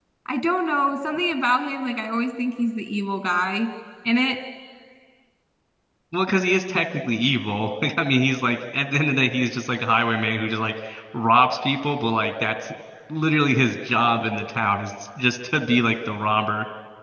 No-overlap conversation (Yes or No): Yes